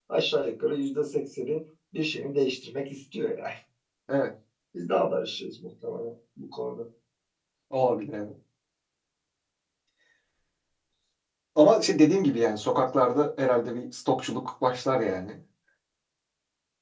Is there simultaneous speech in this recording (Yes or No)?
No